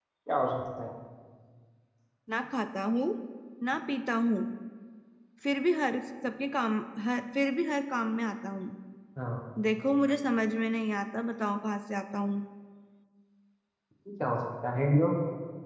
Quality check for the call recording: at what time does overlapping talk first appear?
none

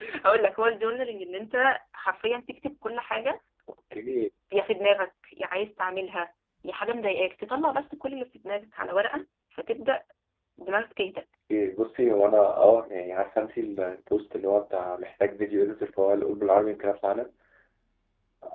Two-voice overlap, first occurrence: none

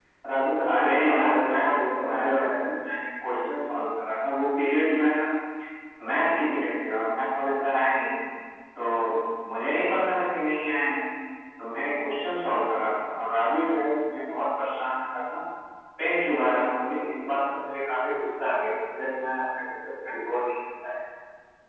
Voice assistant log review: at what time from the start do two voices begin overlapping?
0.7 s

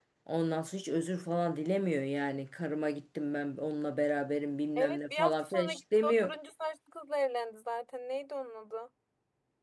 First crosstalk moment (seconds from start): 4.8 s

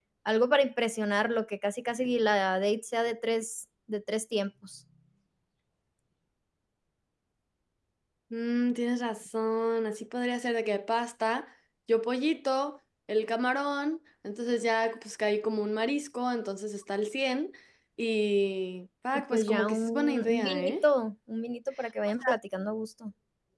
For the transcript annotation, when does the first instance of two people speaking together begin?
19.3 s

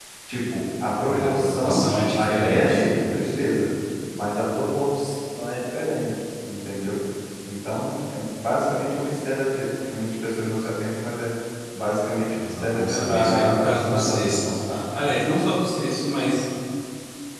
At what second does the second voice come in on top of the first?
1.0 s

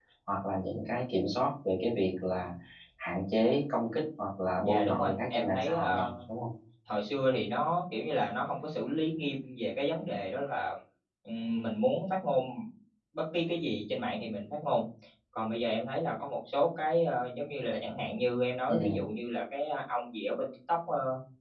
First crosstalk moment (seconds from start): 4.6 s

